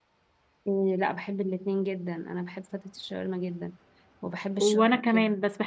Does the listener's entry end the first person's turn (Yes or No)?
Yes